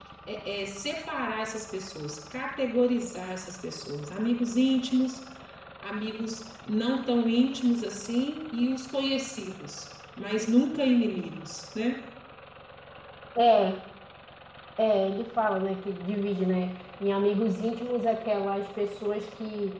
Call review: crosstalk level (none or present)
none